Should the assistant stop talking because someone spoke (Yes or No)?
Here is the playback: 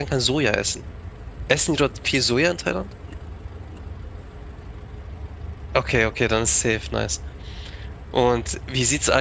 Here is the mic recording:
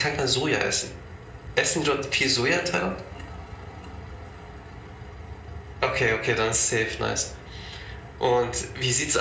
No